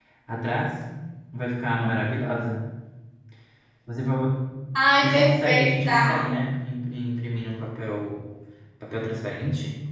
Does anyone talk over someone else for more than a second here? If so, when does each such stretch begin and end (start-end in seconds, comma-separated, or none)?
5.0-6.3